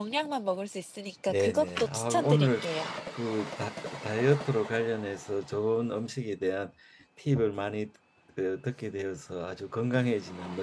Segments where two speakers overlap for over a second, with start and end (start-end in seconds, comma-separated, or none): 1.3-2.6